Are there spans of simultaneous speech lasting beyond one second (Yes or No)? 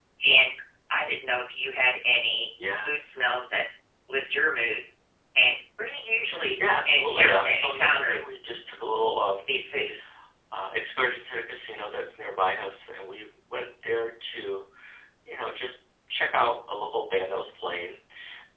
Yes